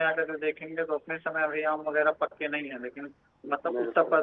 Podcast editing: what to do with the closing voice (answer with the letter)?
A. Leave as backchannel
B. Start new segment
A